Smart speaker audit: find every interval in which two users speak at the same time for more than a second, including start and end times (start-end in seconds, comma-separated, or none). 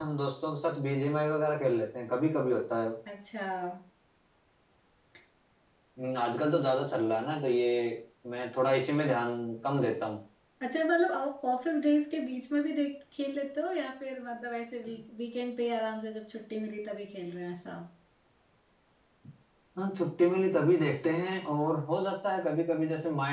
none